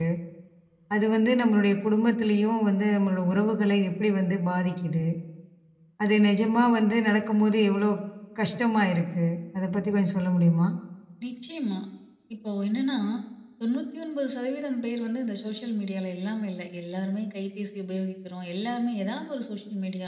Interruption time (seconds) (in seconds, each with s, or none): none